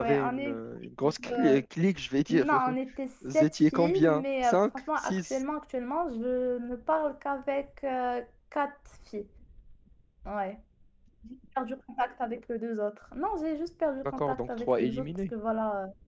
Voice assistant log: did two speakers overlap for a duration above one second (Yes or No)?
Yes